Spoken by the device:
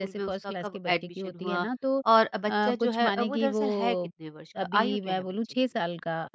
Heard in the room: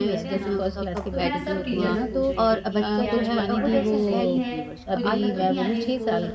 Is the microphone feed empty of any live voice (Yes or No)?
No